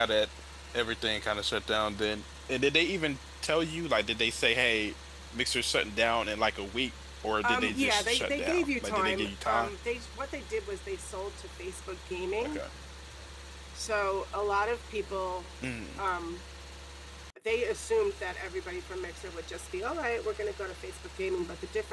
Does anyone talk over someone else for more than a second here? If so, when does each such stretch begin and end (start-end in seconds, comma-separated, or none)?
7.4-9.7